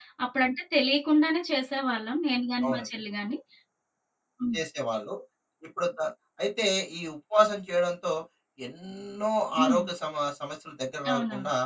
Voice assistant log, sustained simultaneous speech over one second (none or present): none